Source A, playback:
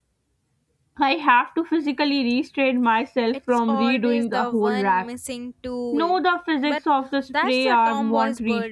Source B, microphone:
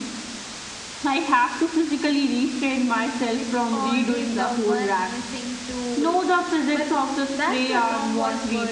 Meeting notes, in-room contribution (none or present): none